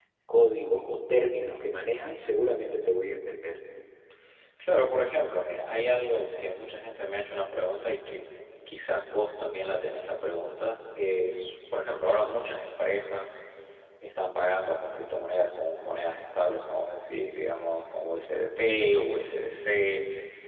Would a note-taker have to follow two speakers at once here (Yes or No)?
No